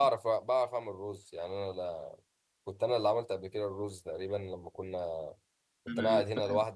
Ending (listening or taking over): listening